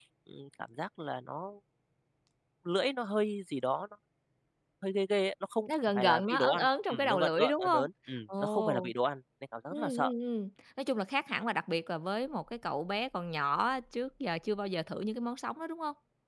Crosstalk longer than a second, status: present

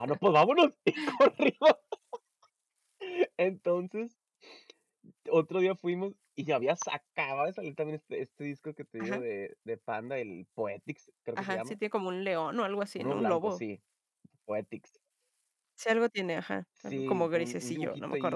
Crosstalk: present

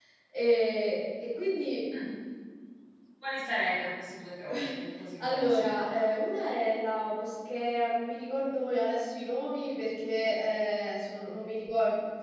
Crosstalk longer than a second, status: none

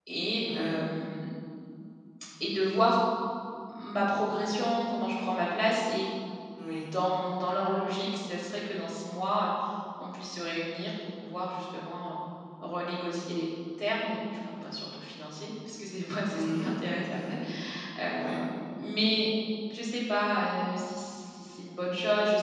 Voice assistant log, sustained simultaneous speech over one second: none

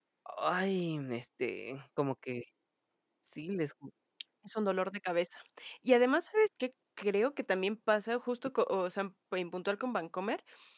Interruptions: none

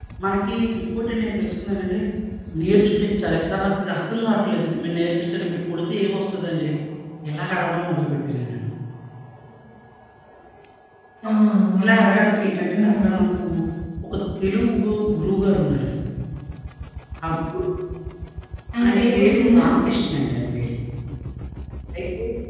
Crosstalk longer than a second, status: present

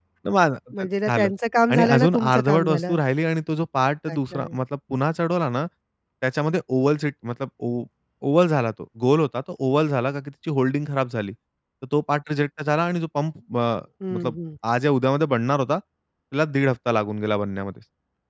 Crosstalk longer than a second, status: present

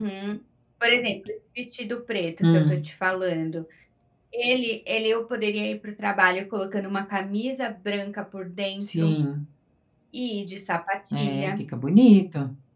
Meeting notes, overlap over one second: none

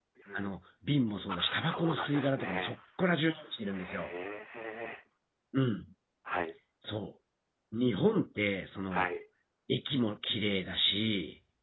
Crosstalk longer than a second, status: present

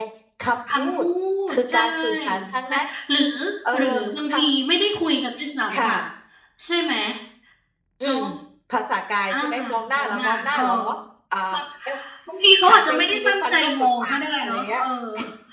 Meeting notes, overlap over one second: present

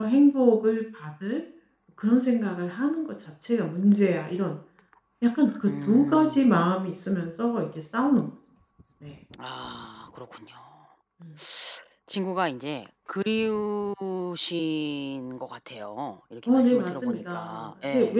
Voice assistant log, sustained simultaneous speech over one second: present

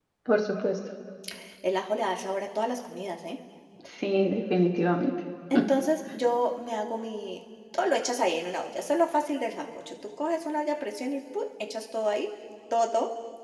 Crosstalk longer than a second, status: none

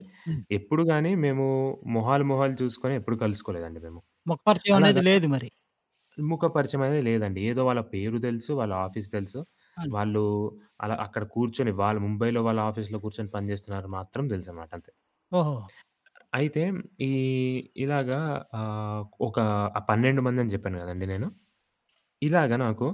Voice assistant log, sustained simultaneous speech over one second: none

